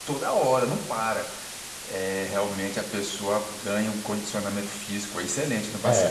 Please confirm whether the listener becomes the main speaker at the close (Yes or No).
Yes